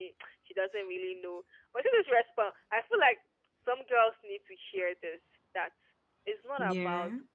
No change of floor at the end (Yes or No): Yes